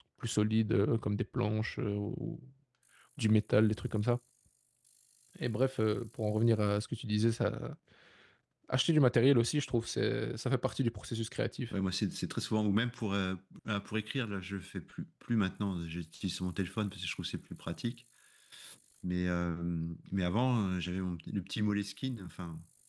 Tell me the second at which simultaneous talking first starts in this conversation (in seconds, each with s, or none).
none